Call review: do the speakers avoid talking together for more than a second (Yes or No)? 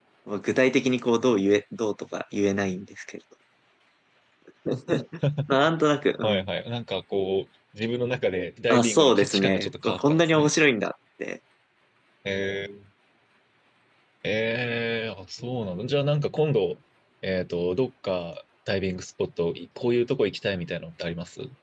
No